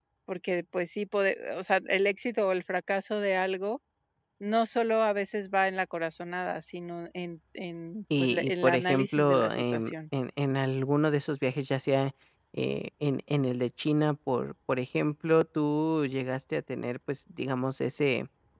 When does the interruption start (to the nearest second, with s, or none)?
8 s